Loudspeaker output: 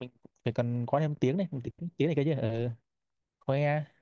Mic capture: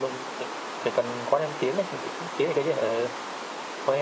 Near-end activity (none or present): none